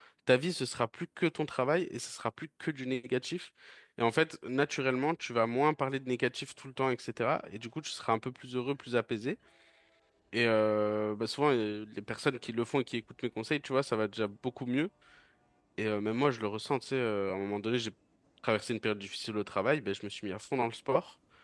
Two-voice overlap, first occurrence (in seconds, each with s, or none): none